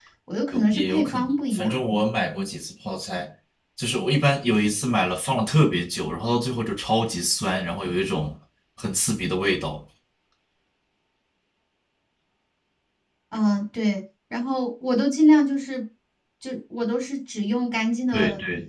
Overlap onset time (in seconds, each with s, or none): 0.5 s